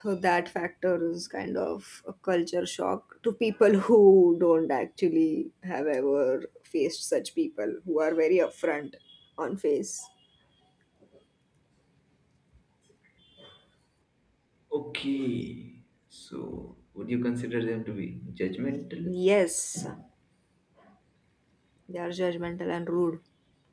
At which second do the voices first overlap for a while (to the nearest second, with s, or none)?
none